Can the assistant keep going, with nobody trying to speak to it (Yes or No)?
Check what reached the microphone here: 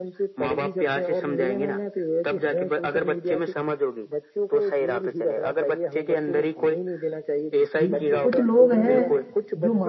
No